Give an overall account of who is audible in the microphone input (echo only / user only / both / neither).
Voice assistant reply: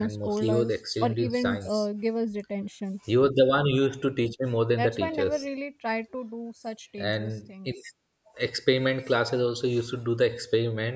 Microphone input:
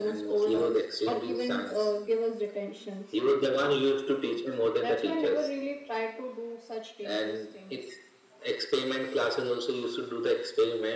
echo only